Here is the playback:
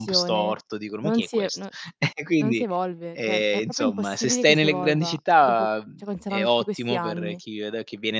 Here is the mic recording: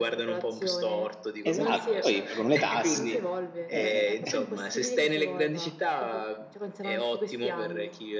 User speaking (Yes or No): Yes